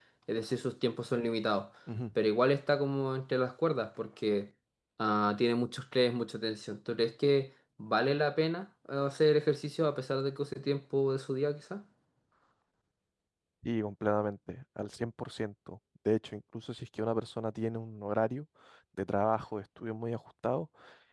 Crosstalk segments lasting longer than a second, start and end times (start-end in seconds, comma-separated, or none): none